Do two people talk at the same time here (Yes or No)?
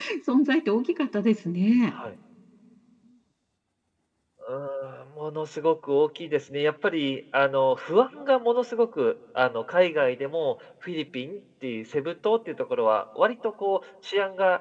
No